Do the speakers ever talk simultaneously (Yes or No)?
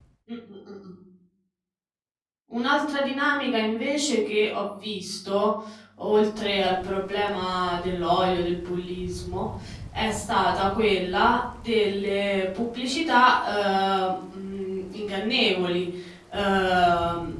No